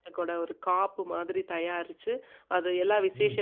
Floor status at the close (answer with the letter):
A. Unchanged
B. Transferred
A